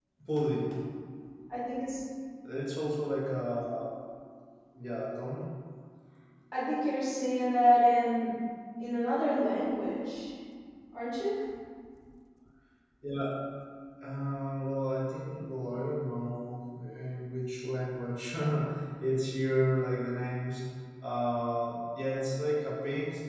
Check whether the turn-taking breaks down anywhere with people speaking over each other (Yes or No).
No